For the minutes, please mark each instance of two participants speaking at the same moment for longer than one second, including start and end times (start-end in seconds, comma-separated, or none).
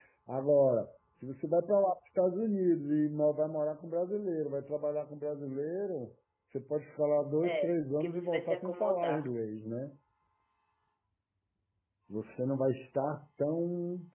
7.4-9.3